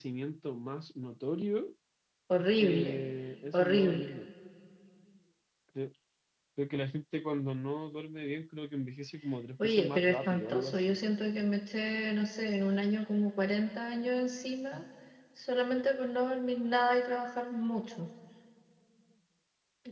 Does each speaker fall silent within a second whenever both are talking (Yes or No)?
No